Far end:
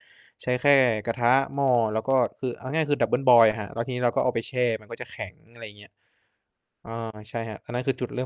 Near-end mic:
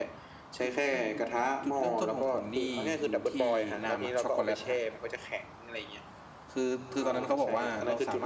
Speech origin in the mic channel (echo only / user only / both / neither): both